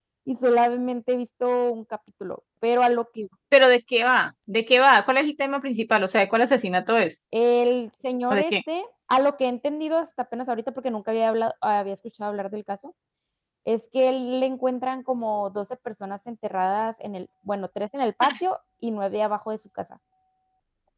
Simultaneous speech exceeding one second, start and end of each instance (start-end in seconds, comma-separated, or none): none